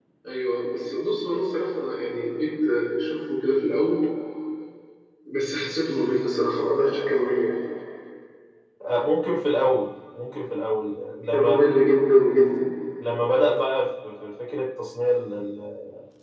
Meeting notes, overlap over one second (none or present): none